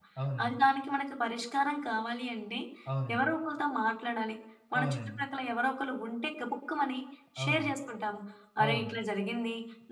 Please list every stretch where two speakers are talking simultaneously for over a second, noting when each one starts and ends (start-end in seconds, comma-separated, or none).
none